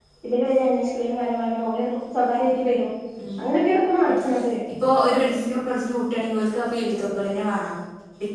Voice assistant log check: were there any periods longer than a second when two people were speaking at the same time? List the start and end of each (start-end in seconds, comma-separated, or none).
none